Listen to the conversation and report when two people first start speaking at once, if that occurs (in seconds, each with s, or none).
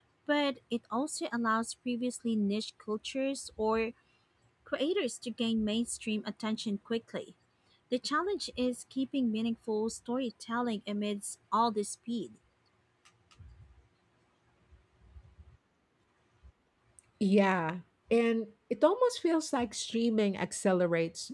none